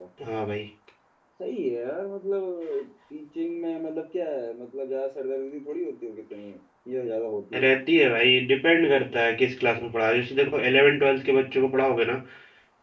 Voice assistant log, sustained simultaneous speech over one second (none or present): none